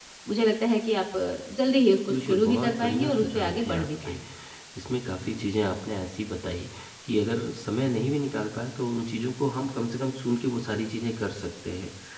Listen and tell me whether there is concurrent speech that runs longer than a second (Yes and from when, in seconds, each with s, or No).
Yes, from 2.1 s